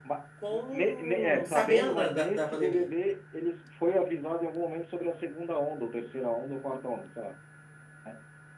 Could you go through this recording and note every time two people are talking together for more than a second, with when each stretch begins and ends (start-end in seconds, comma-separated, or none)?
0.5-2.9